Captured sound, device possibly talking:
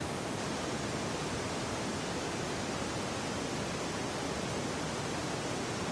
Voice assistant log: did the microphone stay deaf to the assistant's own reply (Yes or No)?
Yes